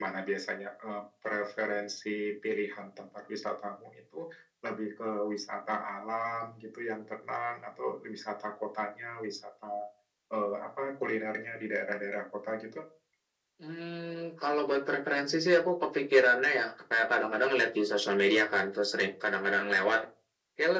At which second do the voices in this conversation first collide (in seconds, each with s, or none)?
none